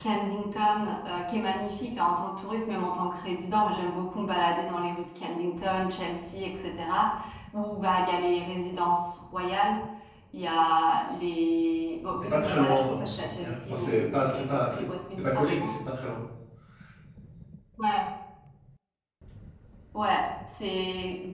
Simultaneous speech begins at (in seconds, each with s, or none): 12.1 s